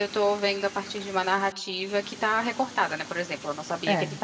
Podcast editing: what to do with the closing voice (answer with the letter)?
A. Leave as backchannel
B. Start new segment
A